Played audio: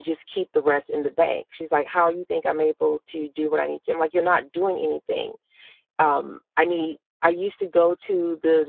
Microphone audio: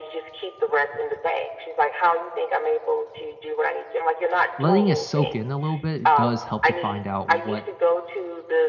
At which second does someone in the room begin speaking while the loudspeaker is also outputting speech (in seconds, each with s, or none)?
4.6 s